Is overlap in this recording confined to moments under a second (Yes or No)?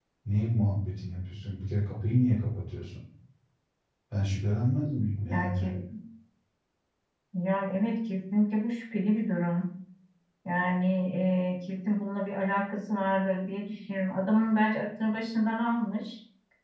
Yes